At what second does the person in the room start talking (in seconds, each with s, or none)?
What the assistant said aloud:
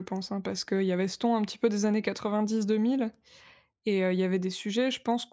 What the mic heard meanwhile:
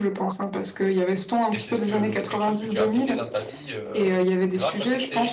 1.5 s